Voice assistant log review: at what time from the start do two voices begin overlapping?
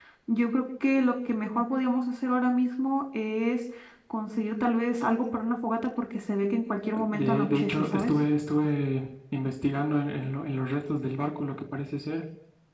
7 s

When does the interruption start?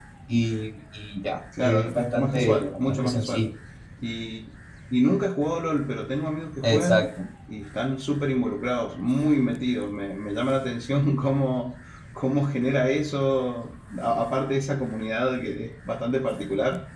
2 s

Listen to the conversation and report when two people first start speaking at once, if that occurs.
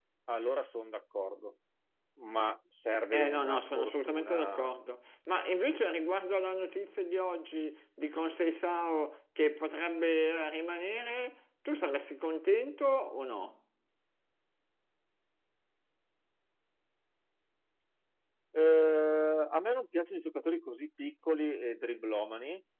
3 s

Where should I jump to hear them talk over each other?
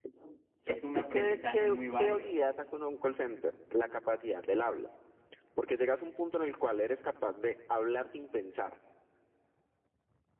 1 s

